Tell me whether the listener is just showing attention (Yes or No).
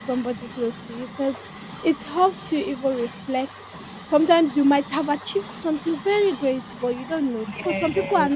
Yes